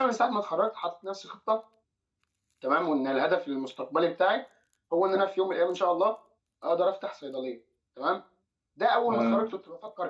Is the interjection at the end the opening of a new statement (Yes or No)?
No